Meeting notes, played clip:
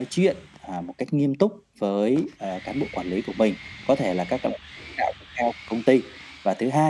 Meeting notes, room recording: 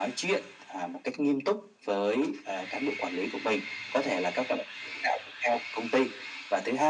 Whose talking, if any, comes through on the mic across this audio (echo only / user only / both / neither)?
echo only